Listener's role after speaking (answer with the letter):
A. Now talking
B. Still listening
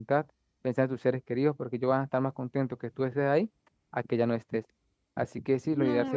A